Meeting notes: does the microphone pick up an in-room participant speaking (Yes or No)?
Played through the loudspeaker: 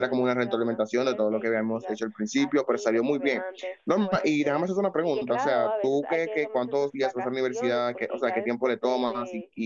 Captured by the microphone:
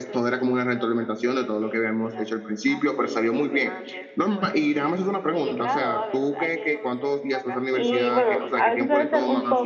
Yes